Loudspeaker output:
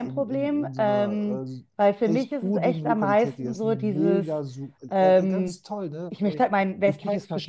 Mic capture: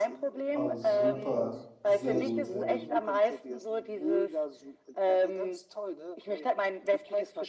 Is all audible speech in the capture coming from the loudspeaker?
No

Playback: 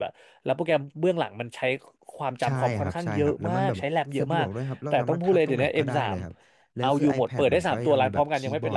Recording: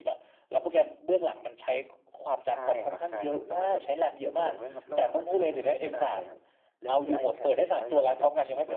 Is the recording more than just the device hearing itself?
No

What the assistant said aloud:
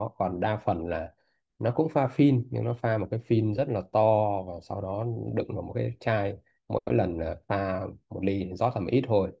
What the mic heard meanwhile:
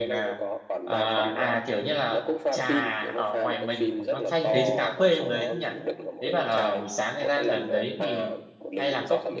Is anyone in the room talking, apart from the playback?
Yes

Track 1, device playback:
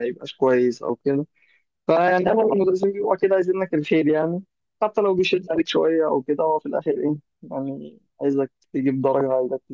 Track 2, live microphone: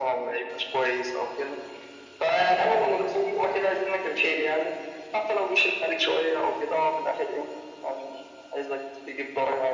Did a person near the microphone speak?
No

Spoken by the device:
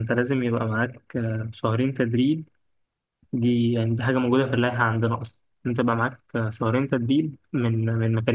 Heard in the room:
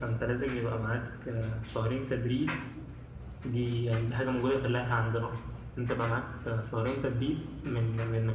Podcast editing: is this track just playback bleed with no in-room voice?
Yes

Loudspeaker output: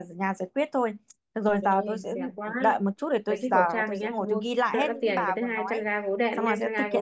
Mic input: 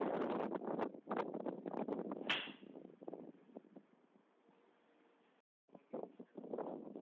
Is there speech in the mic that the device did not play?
No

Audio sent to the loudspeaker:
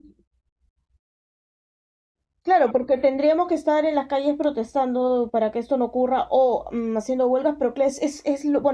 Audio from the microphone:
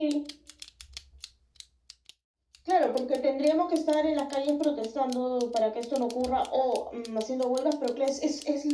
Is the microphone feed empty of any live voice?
Yes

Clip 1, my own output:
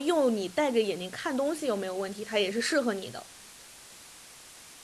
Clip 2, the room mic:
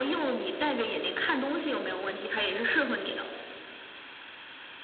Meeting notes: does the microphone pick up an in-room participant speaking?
No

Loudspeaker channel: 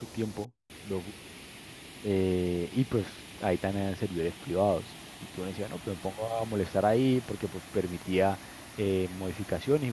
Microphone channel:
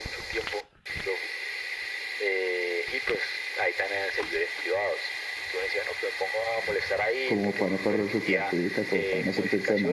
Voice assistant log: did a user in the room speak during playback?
Yes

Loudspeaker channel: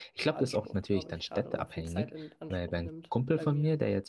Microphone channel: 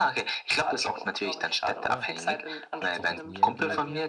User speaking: Yes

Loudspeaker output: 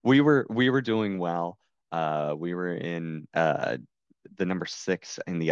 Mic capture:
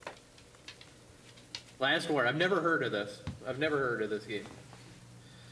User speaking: Yes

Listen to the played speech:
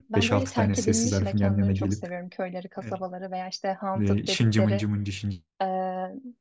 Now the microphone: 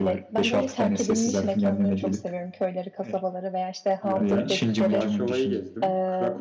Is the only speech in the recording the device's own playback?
No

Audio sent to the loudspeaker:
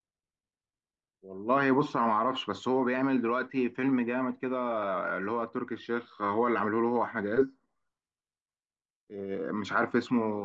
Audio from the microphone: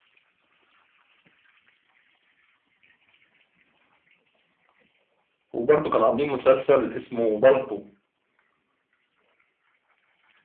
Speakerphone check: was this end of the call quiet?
No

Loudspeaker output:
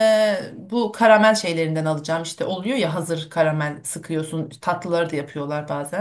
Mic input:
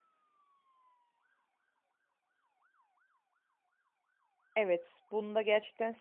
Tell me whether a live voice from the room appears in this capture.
Yes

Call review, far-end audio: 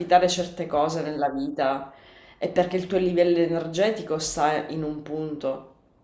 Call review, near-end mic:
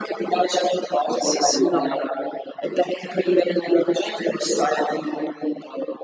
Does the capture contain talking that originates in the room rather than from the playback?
Yes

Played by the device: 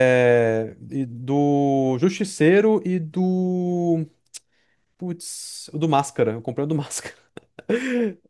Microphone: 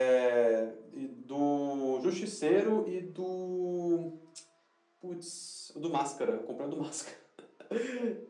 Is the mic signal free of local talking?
Yes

